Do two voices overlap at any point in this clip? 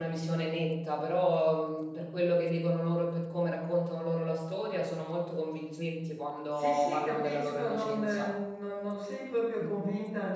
Yes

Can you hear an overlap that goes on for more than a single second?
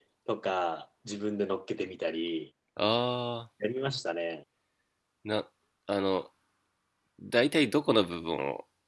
No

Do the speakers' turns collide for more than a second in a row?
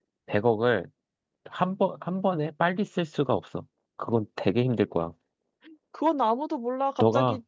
No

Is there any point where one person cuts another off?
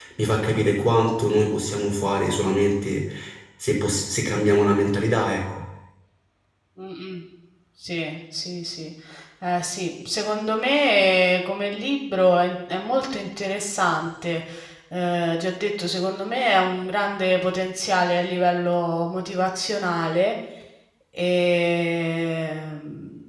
No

